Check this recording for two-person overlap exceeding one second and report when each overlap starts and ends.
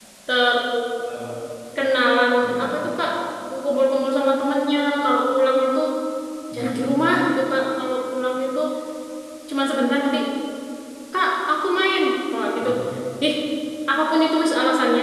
none

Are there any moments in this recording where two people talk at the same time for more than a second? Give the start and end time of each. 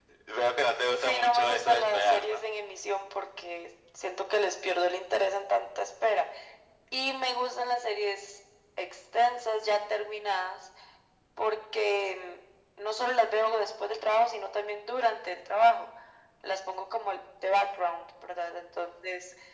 0.9-2.4

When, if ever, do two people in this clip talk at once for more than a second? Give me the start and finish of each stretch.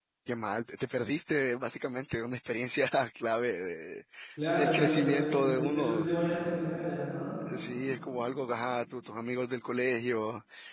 4.5-6.1

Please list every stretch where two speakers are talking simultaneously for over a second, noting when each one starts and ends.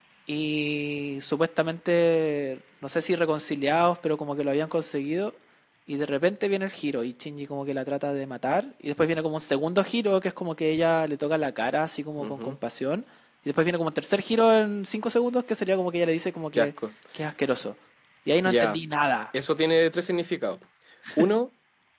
none

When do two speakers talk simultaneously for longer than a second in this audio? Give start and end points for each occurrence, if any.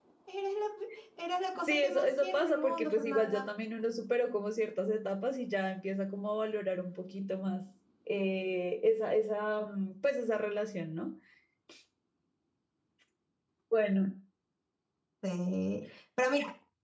1.7-3.5

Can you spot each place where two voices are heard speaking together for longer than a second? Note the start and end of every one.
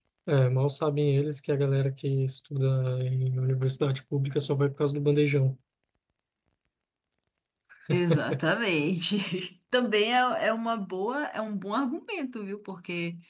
none

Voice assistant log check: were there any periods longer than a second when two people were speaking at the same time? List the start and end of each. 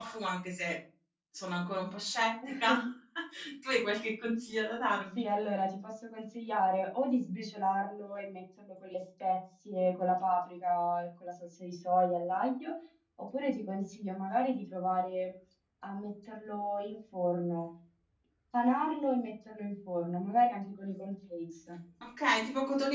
none

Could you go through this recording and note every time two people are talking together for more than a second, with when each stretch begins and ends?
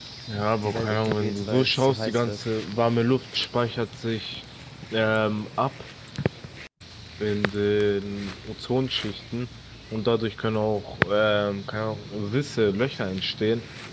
0.6-2.5

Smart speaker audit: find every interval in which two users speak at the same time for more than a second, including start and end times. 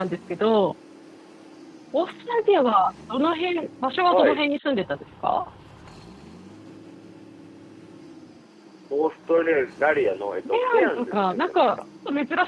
10.4-11.7

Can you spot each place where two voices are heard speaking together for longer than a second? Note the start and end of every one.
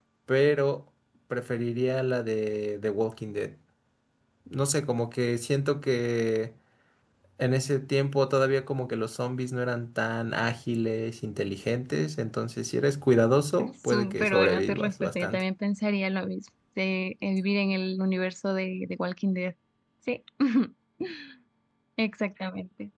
13.9-15.4

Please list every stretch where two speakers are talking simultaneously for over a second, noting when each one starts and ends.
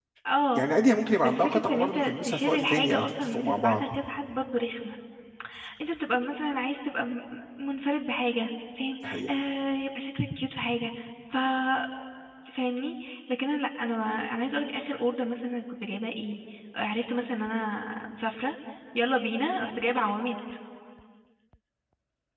1.2-3.8

